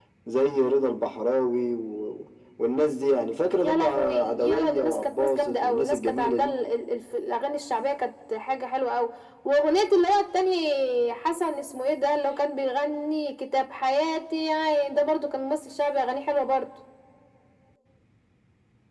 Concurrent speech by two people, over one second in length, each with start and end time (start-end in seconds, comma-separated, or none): 3.6-6.5